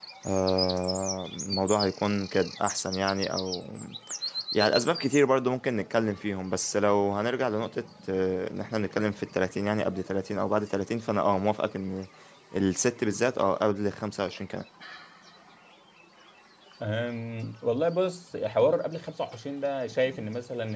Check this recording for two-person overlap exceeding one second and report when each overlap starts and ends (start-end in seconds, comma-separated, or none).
none